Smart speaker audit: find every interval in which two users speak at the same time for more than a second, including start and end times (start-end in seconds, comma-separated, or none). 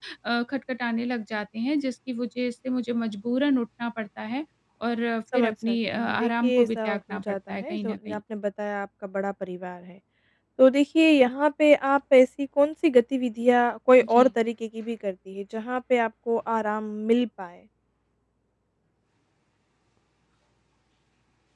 5.3-8.2